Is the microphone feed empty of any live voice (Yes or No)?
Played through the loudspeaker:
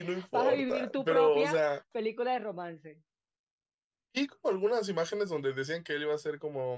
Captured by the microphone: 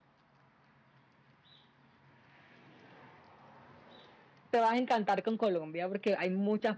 No